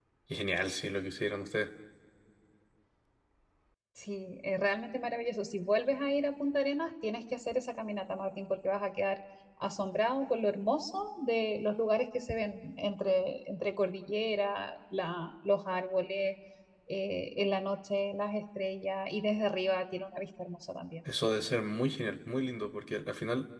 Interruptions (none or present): none